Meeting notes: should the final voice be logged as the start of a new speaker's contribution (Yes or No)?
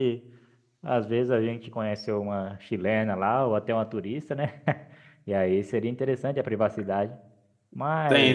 Yes